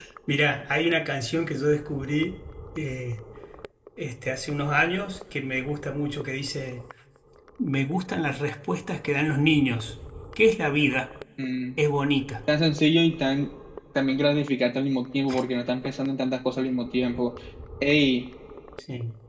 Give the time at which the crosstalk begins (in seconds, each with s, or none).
none